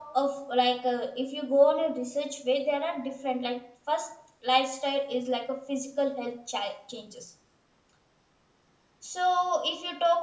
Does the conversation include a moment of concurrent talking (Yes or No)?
No